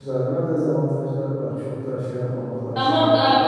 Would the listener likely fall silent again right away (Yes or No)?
No